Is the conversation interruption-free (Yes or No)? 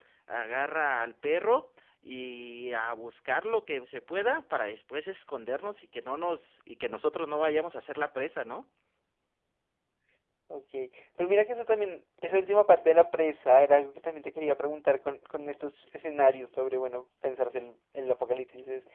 Yes